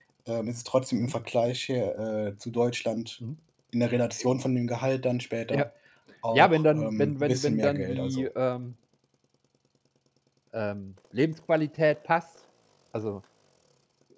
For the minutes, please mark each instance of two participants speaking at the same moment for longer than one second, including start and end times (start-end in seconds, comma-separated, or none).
6.3-8.3